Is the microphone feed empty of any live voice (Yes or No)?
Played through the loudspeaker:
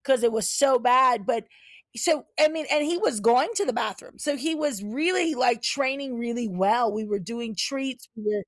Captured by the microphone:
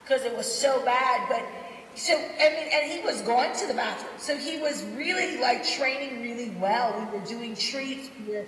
Yes